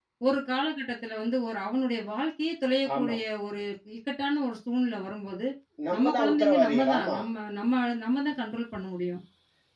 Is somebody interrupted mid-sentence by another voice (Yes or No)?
Yes